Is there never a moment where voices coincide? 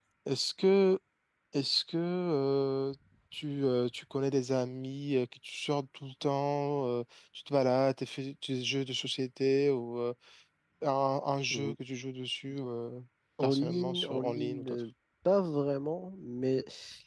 No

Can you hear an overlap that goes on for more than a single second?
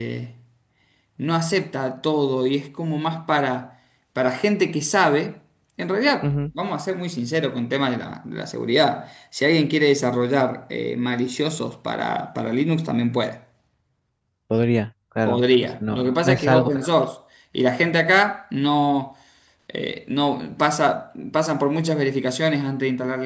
Yes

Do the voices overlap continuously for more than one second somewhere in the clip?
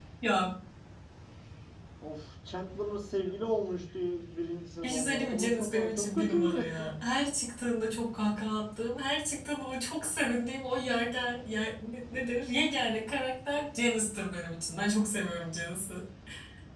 Yes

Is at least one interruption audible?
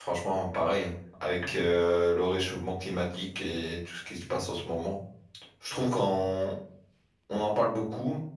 No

